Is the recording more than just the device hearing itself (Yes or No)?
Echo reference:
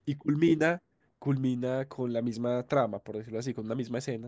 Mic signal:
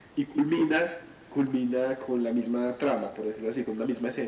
No